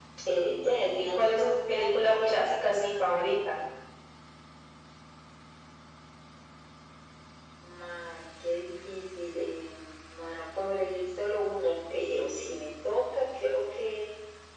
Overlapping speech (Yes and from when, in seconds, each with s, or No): Yes, from 0.6 s